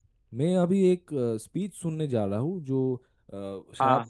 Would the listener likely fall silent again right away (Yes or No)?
Yes